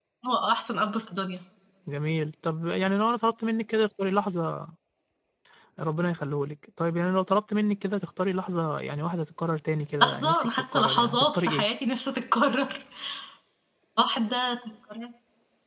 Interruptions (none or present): present